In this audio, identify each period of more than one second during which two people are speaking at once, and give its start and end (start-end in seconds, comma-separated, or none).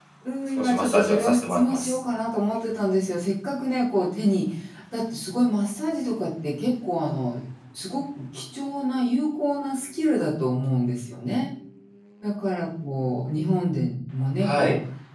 0.6-2.0